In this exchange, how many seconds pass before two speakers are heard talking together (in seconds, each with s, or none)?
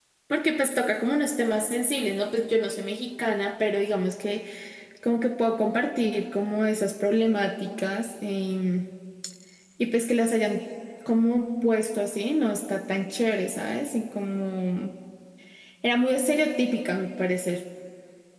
none